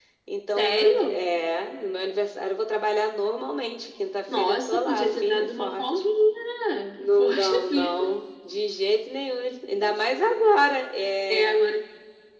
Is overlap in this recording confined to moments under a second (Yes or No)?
No